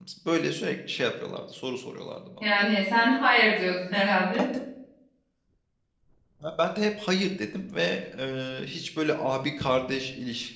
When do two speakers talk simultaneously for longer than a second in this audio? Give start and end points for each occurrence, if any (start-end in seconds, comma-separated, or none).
none